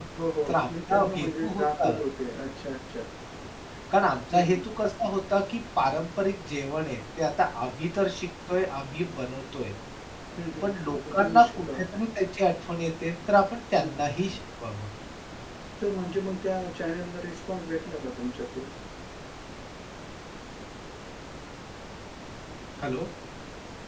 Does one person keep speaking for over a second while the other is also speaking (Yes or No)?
Yes